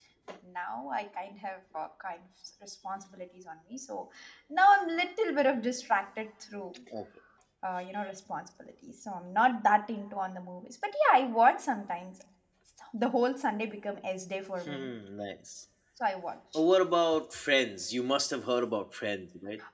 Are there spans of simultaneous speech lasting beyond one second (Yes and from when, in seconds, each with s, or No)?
No